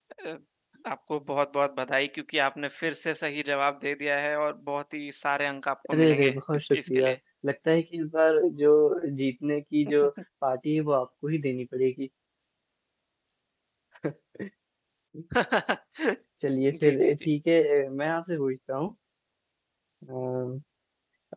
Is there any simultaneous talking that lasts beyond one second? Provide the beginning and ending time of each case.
5.9-7.2

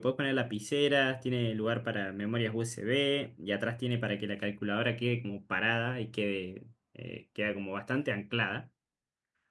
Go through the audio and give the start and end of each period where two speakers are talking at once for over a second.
none

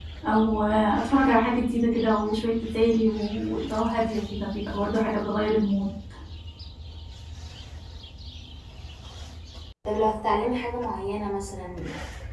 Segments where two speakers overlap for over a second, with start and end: none

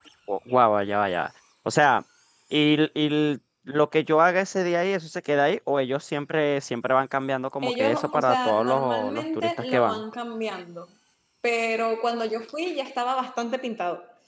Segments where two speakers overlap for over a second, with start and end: 7.6-10.0

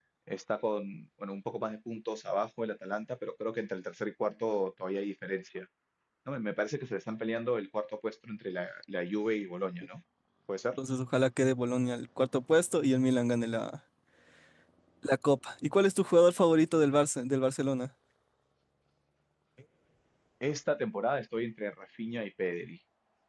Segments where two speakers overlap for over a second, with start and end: none

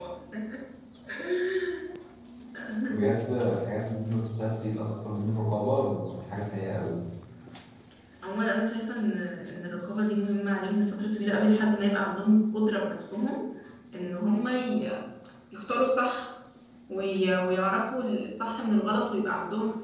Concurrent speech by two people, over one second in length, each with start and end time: none

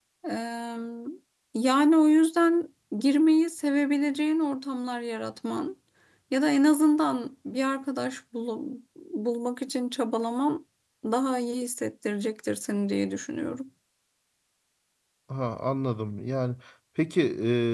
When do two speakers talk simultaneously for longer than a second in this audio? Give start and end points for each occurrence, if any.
none

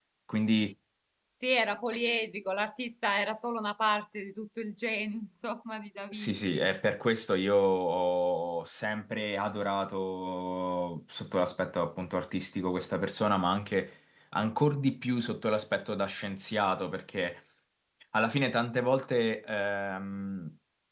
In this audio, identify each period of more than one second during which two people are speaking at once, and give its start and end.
none

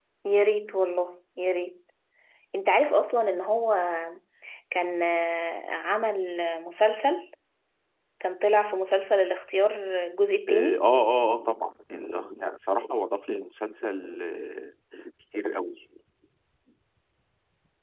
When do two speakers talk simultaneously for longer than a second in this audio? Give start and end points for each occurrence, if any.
none

